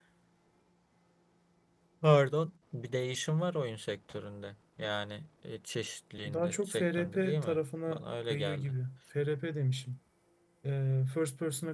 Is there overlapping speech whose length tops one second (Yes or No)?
Yes